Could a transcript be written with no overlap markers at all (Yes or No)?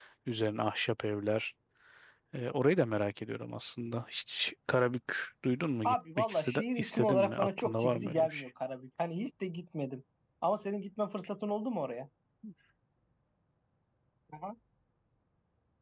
No